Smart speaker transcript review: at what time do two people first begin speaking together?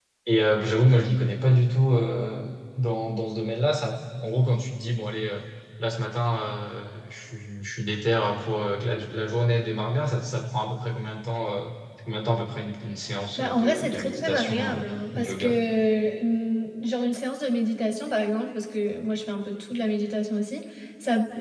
13 s

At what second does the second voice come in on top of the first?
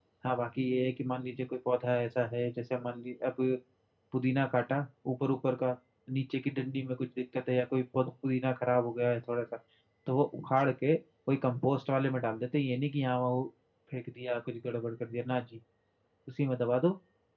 none

